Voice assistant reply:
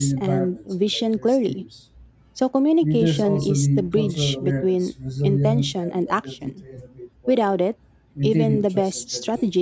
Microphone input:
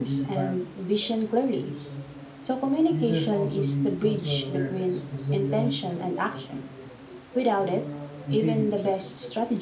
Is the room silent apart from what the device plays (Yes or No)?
No